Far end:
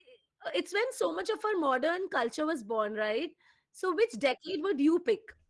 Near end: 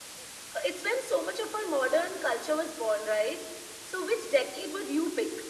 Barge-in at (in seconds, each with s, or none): none